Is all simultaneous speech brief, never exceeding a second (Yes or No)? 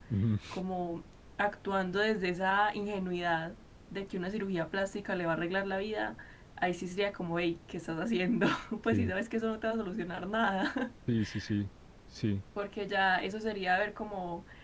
Yes